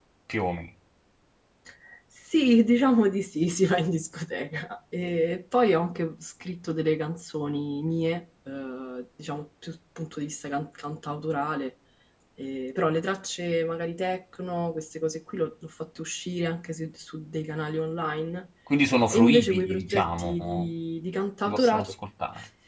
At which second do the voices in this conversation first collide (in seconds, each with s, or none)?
19.1 s